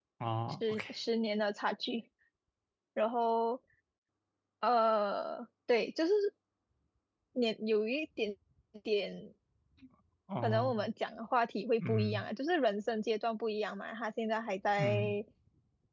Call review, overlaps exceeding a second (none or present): none